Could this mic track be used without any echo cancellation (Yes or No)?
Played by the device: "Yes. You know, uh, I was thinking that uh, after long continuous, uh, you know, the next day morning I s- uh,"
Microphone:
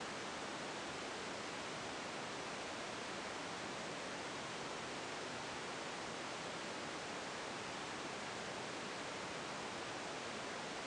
Yes